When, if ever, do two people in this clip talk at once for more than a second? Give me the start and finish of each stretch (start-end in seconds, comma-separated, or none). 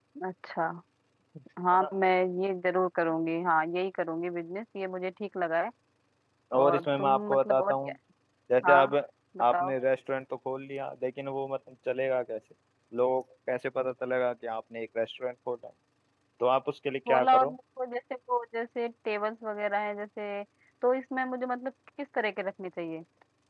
6.6-7.9